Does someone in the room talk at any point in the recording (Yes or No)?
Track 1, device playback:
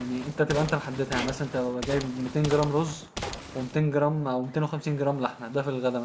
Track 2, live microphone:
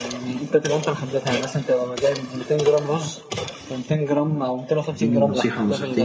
Yes